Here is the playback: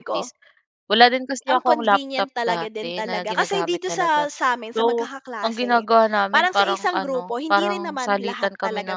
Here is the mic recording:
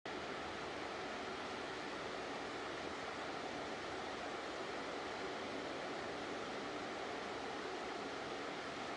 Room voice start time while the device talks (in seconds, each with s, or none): none